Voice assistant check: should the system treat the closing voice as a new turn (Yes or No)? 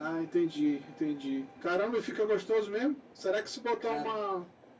No